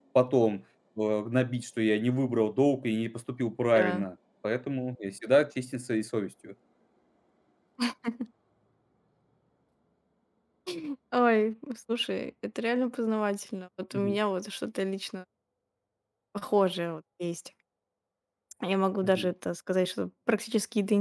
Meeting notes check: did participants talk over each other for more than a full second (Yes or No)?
No